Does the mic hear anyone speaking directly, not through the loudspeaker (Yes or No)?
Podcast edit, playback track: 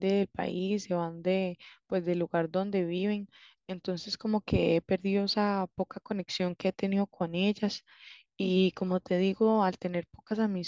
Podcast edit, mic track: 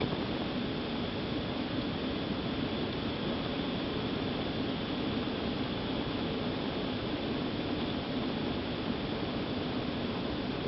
No